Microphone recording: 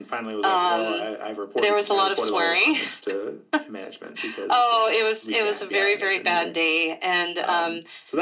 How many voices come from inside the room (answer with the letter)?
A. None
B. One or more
A